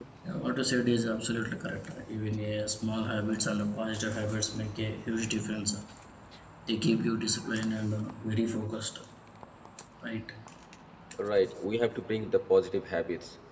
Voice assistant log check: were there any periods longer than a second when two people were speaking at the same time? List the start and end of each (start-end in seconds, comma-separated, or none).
none